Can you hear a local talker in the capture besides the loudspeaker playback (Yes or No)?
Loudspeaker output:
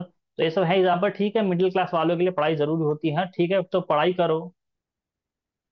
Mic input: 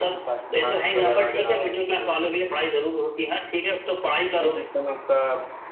Yes